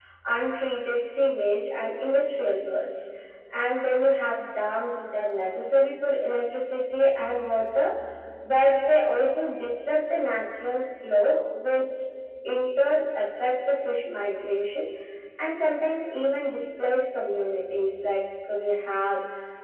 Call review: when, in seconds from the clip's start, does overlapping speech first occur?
none

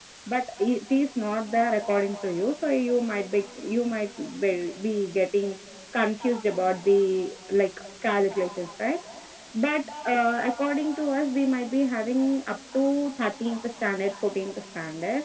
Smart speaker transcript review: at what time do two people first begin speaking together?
none

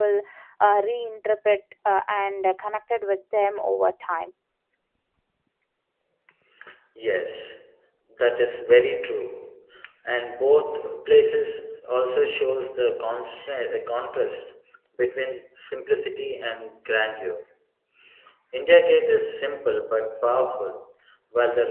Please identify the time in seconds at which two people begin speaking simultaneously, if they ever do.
none

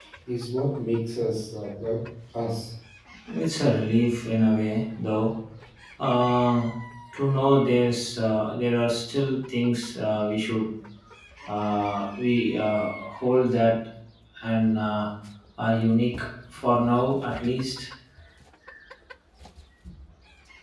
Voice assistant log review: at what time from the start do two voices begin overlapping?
none

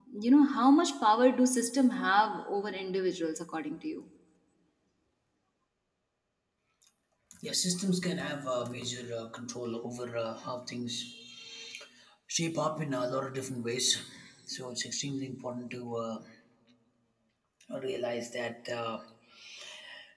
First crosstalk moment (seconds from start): none

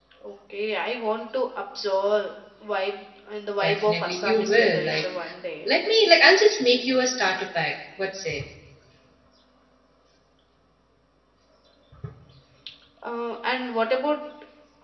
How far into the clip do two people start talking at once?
3.6 s

